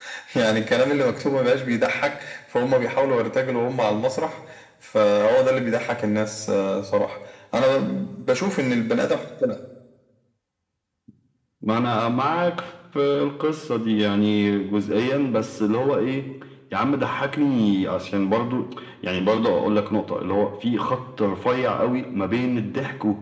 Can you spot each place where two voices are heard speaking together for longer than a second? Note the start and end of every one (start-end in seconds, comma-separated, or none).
none